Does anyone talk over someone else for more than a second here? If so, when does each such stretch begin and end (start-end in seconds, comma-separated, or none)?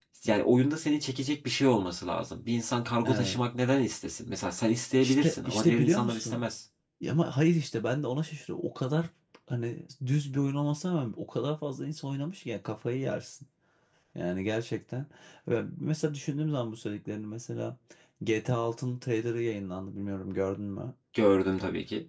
5.0-6.4